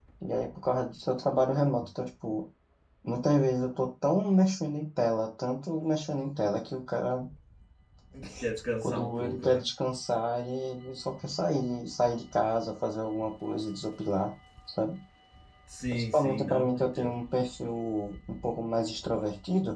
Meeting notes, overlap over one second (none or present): present